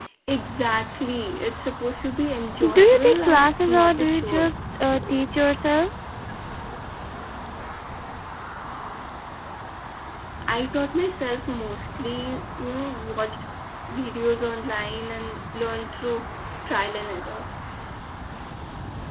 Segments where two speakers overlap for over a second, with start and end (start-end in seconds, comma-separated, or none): 2.6-4.5